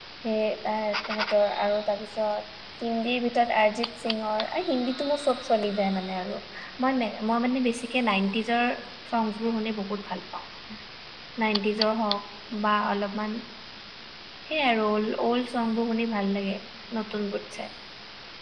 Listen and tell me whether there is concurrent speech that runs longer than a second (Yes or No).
No